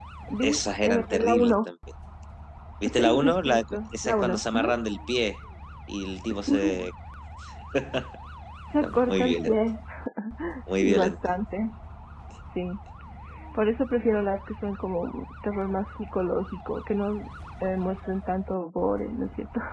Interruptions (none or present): present